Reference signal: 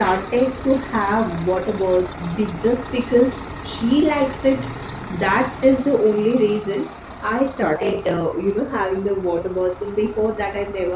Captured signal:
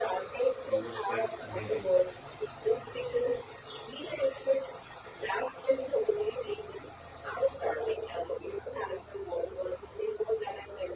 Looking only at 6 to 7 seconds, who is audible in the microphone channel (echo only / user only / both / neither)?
echo only